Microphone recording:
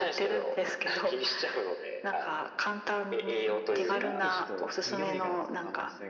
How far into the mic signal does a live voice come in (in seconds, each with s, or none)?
3.7 s